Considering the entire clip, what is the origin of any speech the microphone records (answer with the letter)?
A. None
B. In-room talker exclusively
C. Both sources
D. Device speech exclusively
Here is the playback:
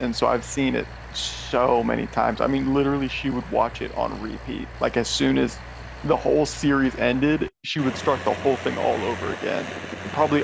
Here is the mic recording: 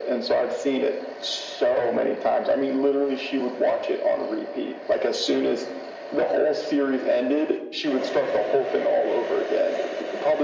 D